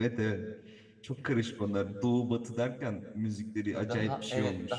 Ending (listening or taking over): taking over